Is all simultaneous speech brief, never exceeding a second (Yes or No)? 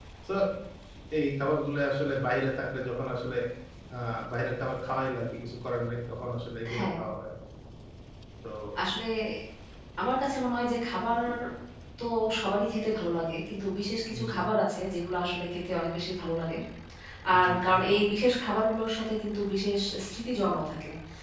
Yes